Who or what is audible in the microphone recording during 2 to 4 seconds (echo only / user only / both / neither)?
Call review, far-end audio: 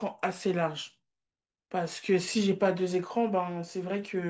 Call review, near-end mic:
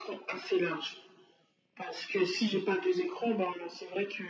echo only